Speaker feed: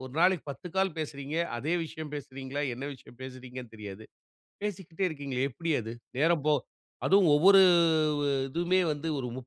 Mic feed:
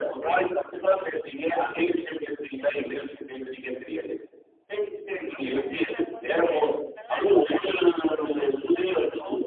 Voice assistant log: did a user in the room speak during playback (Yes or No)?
Yes